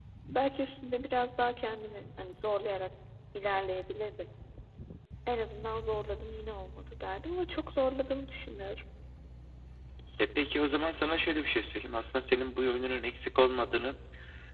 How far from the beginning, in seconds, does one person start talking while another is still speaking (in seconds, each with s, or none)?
none